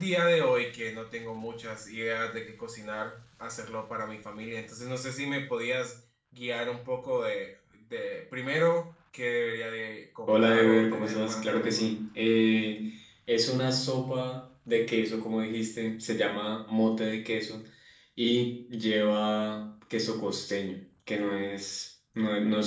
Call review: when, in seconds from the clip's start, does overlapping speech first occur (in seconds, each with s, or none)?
10.3 s